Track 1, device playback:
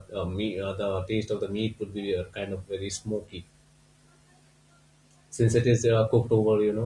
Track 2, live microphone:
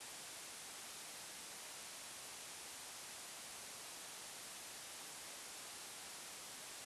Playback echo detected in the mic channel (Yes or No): No